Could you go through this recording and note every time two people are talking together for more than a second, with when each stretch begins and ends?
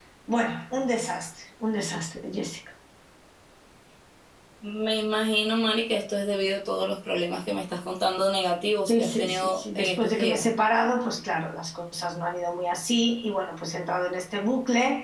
8.9-10.4

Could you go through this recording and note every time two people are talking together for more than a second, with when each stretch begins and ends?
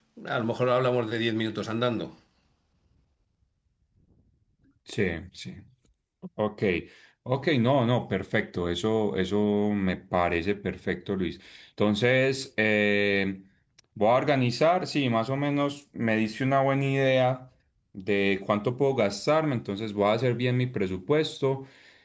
none

